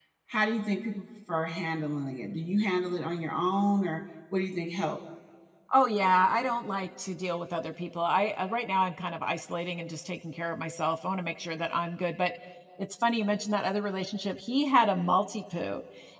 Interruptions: none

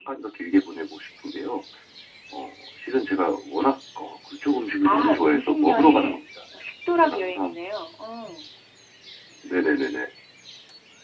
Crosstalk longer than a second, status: present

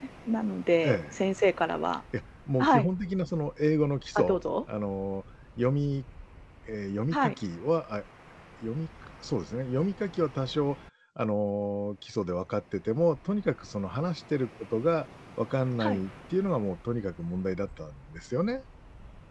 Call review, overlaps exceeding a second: none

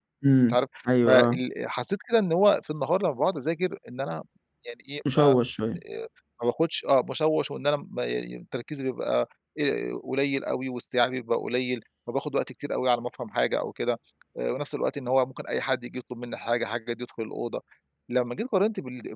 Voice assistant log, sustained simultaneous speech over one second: none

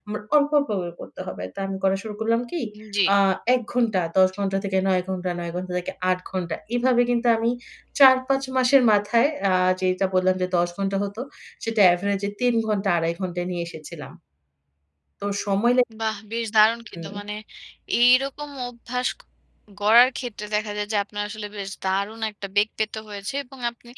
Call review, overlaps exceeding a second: none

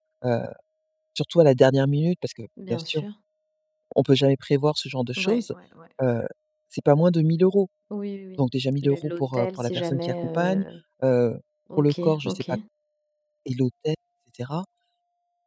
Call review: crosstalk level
present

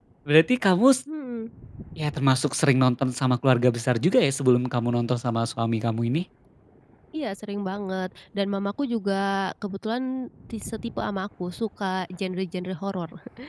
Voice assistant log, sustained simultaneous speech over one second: none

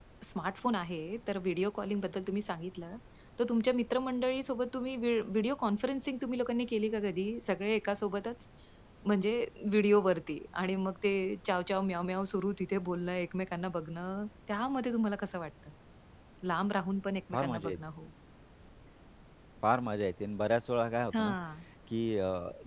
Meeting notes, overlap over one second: none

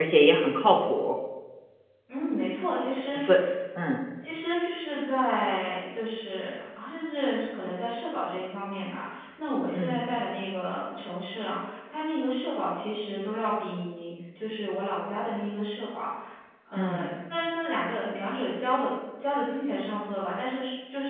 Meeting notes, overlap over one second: none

